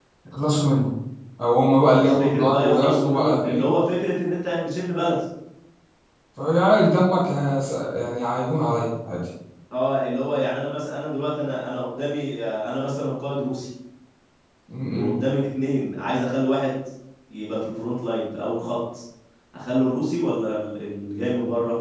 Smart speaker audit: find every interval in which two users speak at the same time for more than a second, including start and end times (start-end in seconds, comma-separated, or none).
1.8-3.7